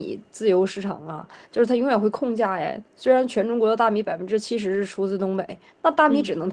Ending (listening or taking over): listening